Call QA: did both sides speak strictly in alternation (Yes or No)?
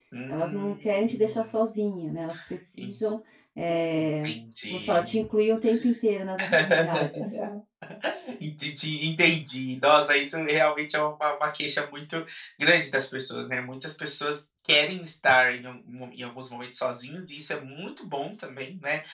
No